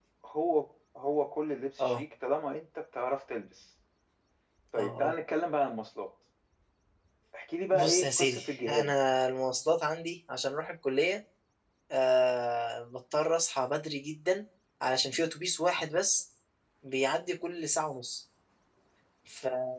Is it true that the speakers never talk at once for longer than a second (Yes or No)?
No